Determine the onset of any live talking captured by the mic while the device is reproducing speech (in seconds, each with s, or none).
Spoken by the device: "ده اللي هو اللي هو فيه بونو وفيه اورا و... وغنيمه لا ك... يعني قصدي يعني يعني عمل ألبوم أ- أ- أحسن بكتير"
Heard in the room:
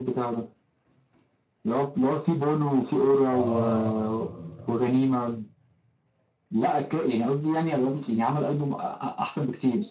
3.3 s